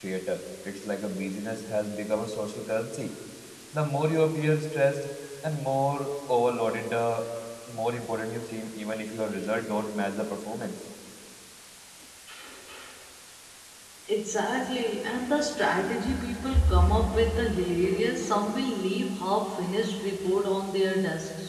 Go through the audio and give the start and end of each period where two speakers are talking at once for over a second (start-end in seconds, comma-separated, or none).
none